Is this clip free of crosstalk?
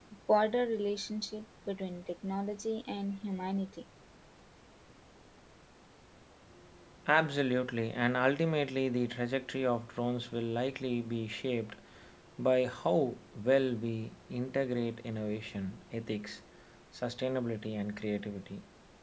Yes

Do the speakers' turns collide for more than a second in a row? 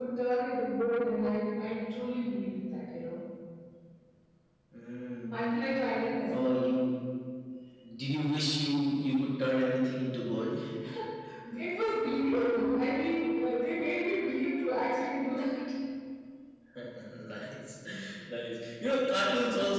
No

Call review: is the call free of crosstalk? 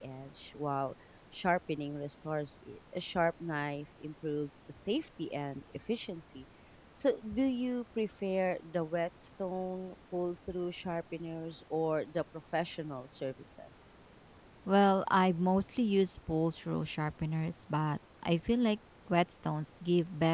Yes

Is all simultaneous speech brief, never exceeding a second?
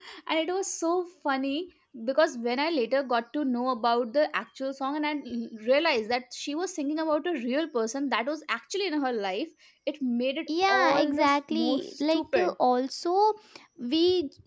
No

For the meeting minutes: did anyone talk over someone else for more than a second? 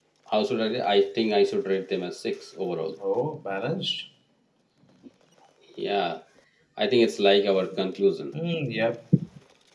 No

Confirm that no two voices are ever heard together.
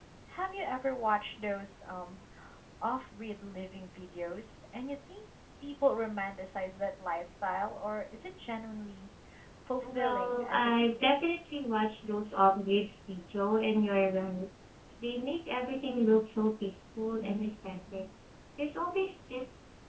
No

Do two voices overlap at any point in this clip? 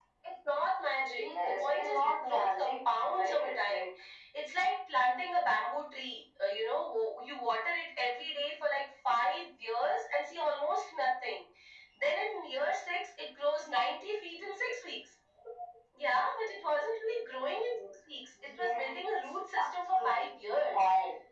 Yes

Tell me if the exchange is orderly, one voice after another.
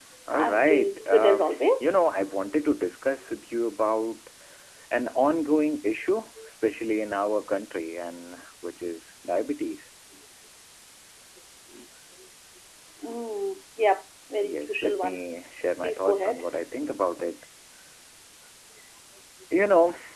No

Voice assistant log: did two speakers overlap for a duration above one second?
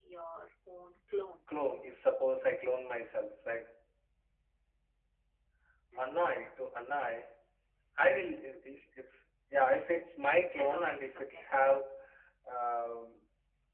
Yes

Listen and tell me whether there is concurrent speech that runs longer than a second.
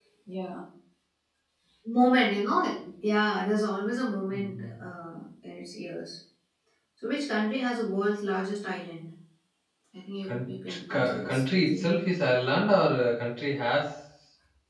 Yes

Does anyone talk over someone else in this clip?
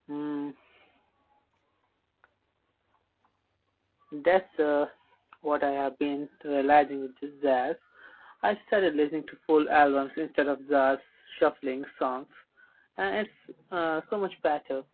No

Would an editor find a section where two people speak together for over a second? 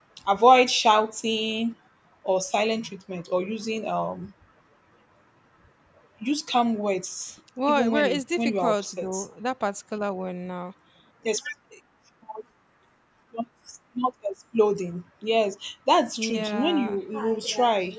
Yes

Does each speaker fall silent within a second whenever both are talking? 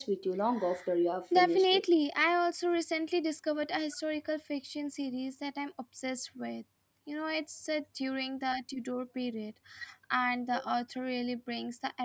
Yes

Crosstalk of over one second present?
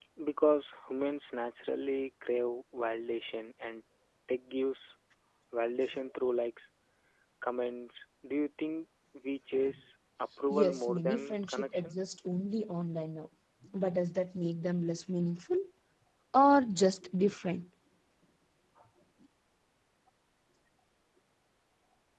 Yes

